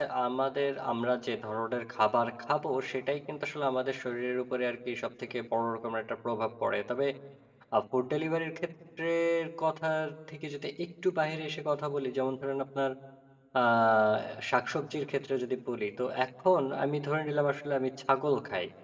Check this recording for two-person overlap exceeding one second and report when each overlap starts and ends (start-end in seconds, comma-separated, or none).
none